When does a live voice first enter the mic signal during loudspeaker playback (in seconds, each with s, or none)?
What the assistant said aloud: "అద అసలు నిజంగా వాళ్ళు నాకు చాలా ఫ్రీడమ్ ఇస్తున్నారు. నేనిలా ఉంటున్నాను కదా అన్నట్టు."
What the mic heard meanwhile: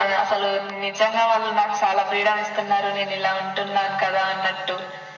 none